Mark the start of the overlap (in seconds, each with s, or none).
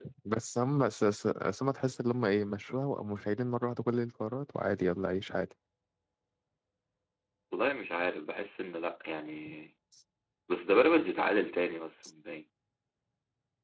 none